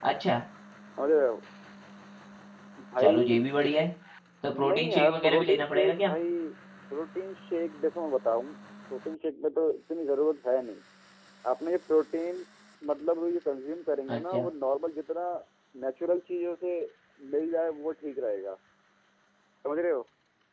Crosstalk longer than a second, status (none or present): present